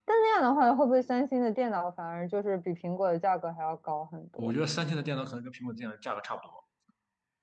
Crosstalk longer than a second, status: none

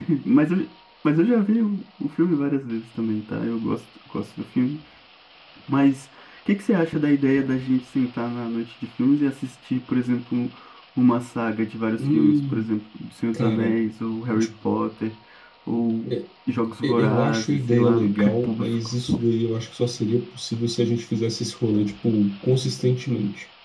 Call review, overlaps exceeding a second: present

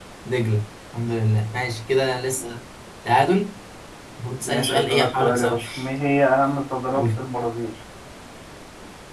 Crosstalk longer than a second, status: present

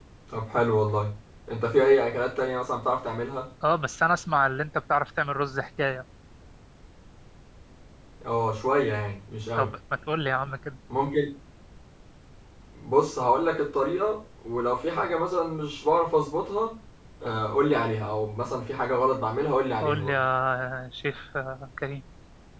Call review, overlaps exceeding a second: none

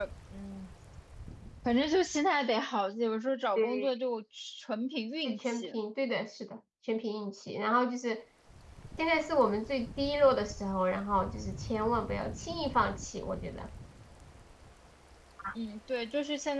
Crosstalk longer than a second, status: none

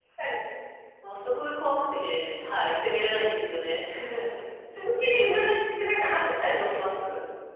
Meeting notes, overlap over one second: none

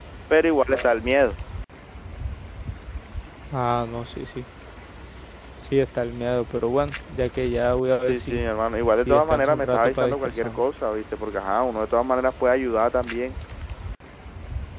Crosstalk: present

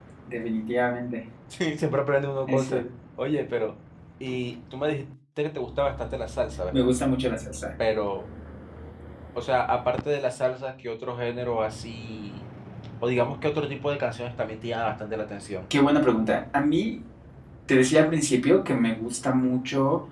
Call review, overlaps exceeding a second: none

